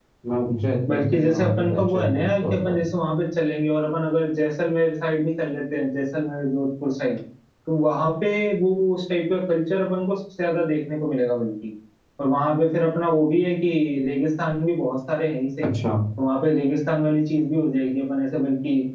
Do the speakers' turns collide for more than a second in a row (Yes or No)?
Yes